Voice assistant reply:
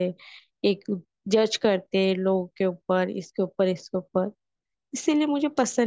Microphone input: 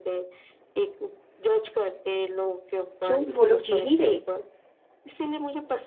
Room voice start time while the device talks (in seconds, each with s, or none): 3.0 s